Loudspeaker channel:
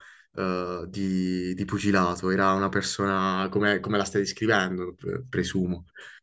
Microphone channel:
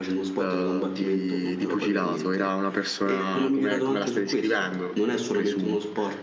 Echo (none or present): present